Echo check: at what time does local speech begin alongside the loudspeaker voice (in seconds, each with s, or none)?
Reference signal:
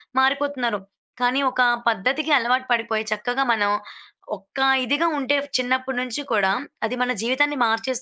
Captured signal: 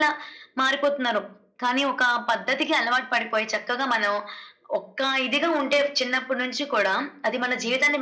none